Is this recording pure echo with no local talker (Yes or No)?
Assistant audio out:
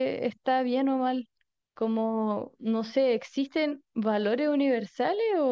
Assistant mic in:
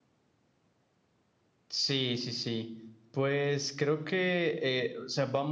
No